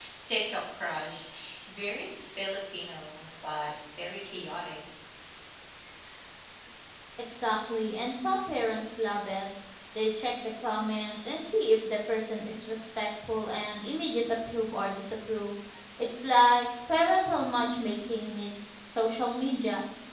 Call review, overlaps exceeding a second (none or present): none